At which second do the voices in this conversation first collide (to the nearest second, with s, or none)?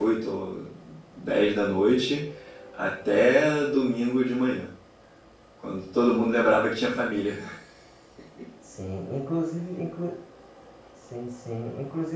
none